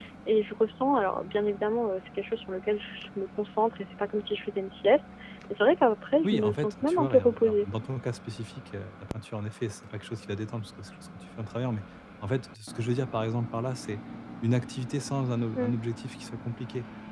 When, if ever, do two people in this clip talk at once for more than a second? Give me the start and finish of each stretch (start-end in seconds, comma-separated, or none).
6.2-7.7